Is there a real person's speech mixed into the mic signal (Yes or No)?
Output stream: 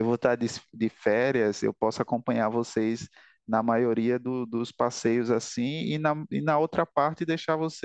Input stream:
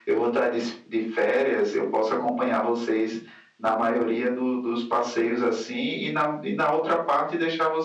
No